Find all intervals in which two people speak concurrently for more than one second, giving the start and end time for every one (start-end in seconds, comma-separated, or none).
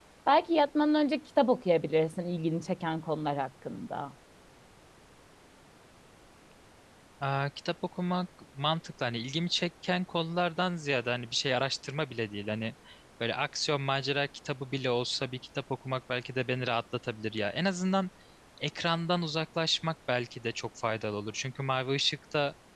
none